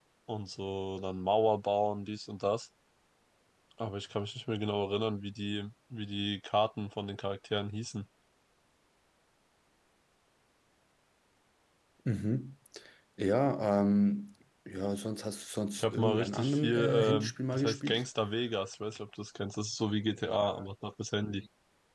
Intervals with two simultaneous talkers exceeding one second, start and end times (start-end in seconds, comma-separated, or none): 15.7-18.0